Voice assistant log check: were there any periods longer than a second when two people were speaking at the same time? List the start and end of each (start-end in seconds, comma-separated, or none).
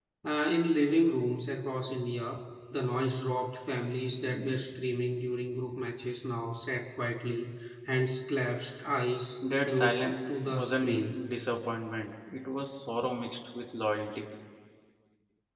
9.6-11.2